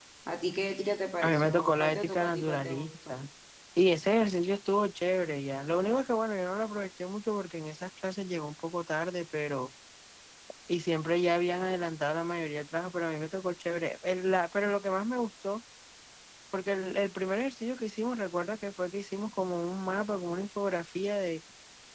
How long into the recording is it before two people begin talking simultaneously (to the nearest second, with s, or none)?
1 s